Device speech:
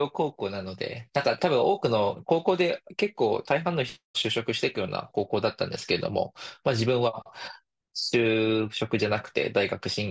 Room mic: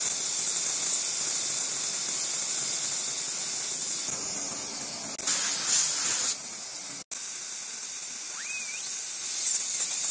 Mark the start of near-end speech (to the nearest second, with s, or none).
none